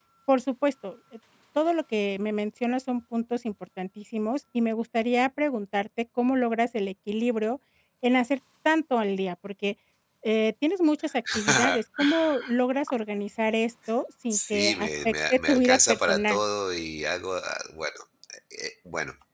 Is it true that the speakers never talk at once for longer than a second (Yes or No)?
No